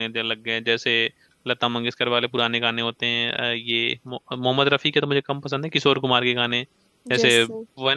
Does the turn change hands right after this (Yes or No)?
No